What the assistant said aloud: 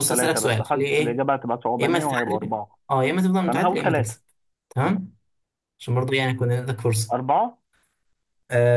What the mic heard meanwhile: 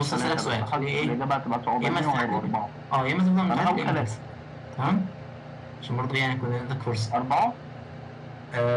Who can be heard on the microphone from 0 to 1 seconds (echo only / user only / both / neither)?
echo only